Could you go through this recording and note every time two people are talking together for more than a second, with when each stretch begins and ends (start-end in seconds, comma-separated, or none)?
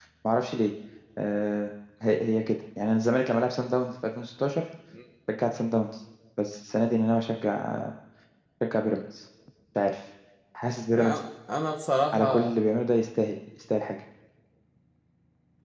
none